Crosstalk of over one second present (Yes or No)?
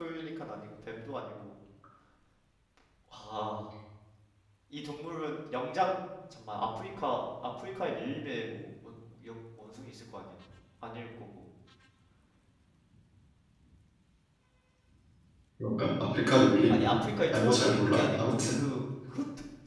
Yes